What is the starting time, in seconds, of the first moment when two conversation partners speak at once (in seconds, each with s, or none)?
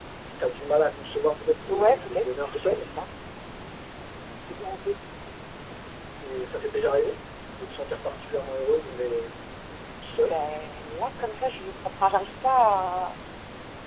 1.7 s